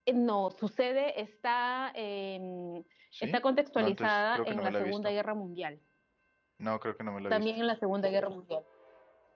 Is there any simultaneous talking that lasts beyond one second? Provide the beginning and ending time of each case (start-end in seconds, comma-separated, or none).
3.8-5.1